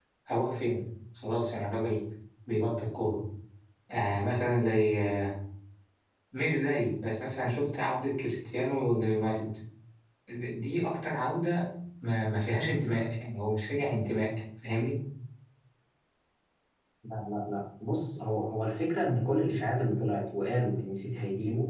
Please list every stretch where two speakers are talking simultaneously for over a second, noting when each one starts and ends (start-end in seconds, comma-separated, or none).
none